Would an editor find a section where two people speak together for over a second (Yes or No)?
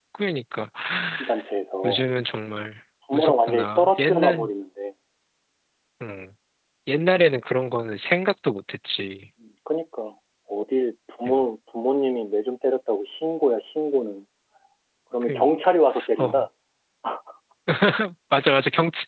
Yes